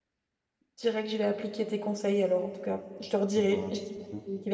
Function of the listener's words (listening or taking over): listening